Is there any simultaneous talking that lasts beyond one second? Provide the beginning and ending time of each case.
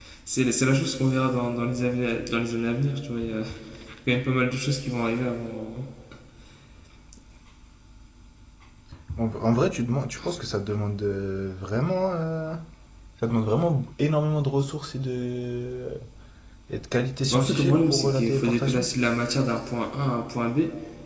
17.3-18.8

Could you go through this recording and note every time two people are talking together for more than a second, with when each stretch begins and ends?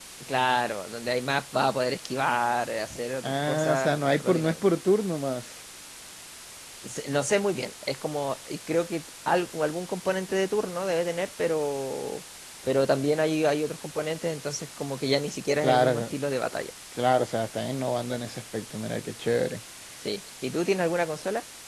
3.2-4.5

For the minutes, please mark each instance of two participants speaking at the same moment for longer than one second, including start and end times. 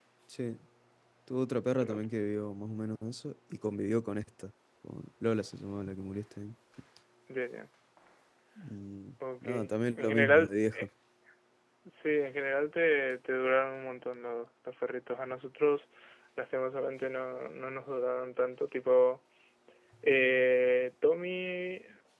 9.4-10.8

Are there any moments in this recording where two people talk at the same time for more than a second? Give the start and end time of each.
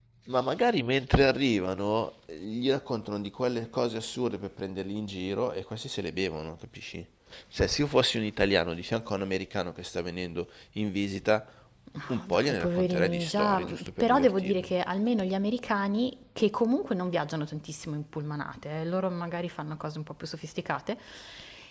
12.1-14.7

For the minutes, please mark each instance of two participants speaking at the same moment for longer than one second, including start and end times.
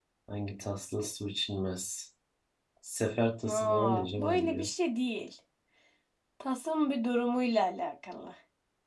3.4-4.7

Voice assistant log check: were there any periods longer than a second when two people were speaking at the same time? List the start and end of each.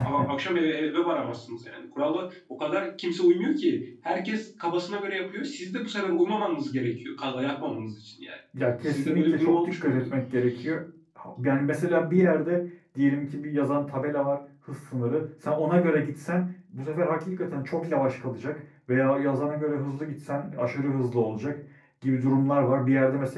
8.9-10.1

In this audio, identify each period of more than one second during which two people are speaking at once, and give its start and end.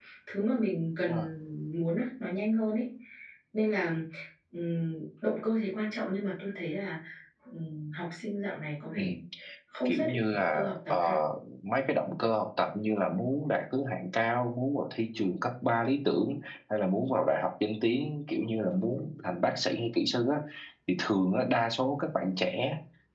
9.8-11.2

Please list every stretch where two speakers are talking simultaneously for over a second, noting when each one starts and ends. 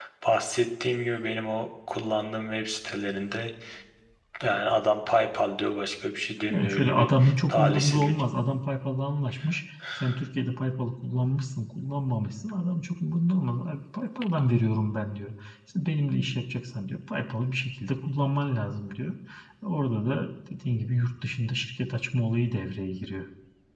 6.5-8.2

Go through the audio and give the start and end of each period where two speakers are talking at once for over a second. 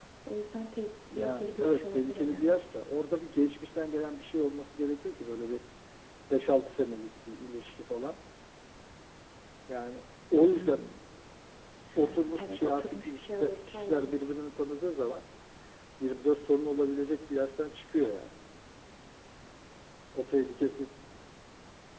1.2-2.6, 12.0-14.3

